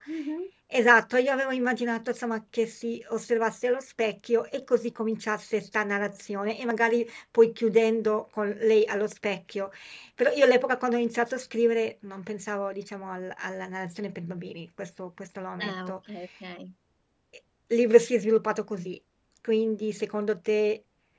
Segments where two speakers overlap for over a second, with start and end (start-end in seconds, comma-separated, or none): none